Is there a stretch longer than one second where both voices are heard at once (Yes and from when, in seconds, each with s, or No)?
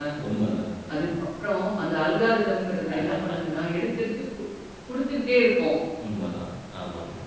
No